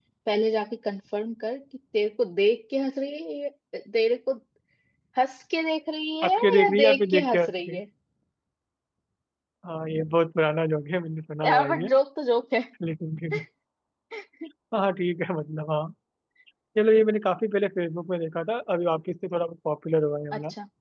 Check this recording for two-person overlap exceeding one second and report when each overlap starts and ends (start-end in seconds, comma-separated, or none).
6.2-7.8